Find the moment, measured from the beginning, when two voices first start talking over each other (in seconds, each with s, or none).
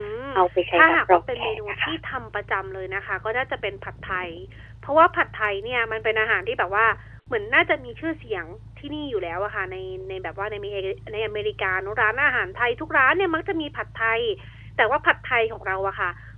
0.7 s